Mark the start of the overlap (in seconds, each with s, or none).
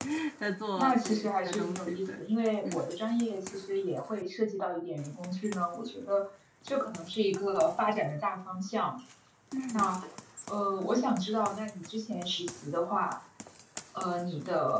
0.8 s